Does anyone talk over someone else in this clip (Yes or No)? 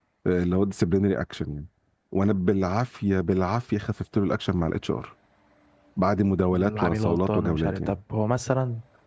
Yes